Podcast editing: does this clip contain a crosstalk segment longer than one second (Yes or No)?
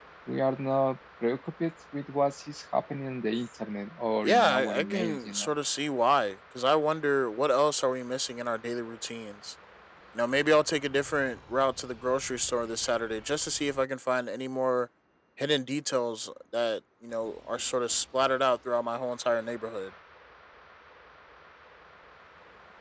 Yes